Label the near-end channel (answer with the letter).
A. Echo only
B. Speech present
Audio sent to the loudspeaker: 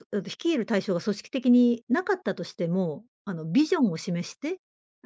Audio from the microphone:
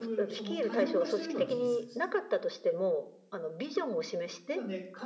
B